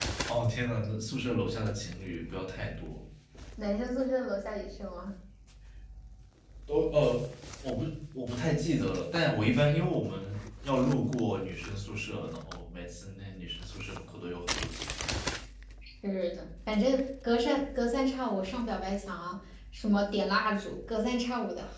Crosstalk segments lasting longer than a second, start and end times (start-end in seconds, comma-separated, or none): none